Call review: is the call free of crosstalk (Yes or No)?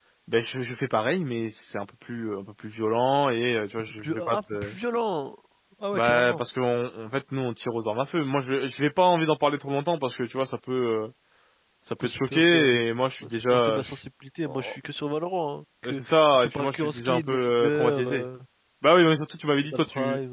No